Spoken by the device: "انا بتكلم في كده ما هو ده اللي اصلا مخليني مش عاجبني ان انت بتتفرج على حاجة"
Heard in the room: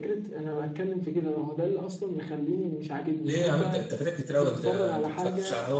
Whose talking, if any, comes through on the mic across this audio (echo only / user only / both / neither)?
both